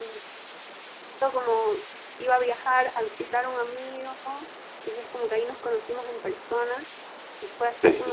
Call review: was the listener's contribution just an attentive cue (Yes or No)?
Yes